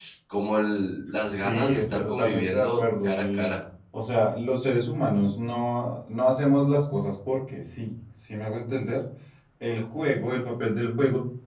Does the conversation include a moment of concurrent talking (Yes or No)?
Yes